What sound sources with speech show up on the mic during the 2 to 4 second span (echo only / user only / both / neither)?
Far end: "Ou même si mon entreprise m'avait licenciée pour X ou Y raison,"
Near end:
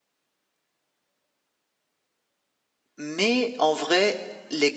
user only